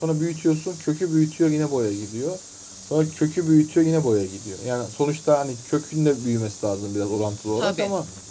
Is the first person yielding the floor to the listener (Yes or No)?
No